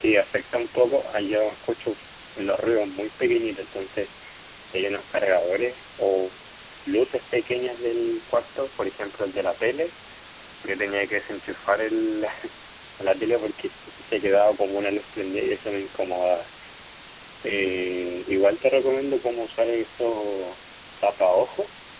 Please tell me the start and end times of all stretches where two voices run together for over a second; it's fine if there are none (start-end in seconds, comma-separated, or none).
none